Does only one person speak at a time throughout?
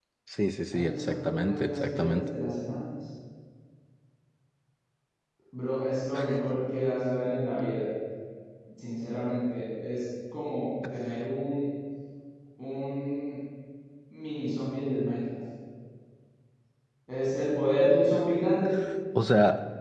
No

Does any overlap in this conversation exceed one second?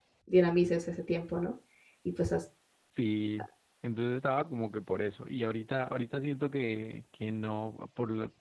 No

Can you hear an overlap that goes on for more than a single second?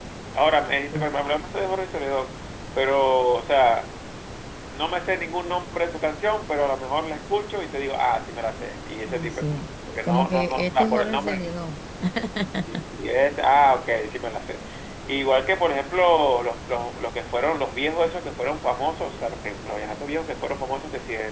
Yes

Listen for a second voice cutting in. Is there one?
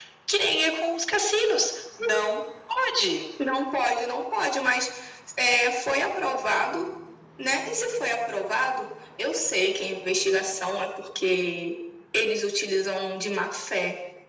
No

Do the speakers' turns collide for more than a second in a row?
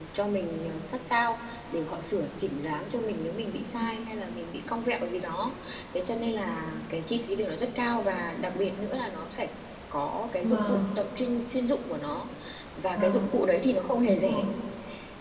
No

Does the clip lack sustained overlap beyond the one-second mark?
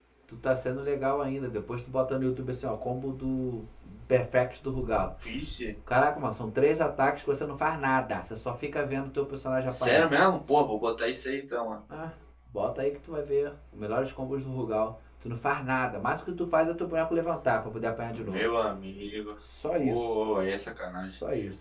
Yes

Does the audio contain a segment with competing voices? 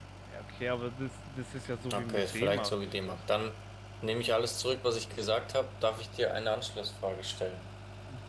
Yes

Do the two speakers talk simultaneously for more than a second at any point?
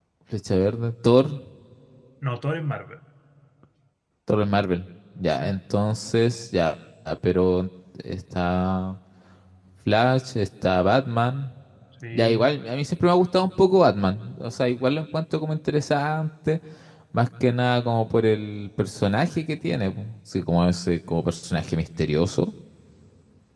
No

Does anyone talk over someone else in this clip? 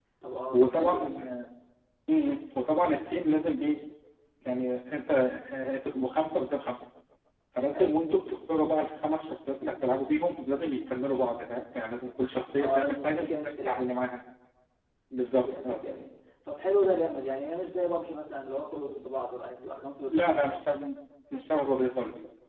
Yes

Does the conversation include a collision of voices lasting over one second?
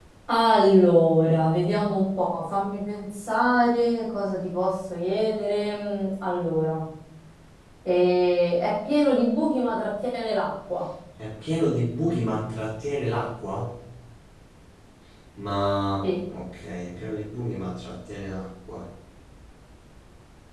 No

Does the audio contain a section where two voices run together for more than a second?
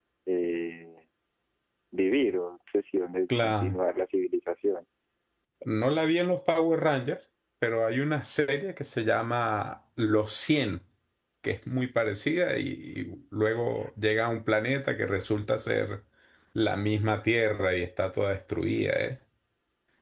No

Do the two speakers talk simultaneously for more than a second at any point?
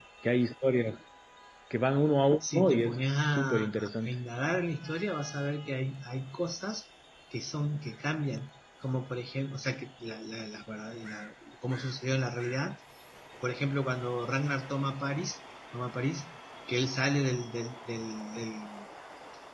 Yes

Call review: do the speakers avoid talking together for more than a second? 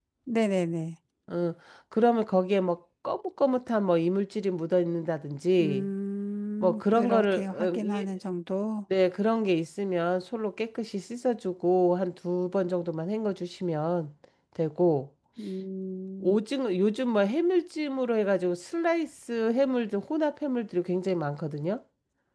No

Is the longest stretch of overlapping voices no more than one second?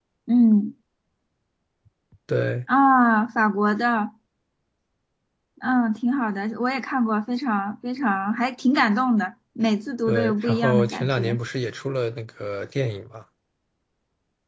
No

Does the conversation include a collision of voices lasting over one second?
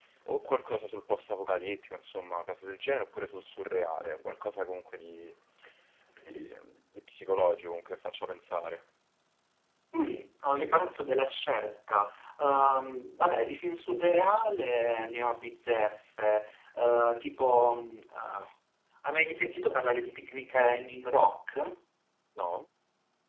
No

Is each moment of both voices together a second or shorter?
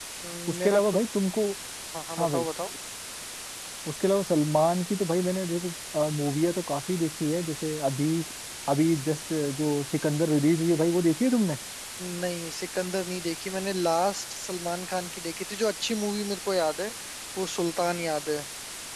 Yes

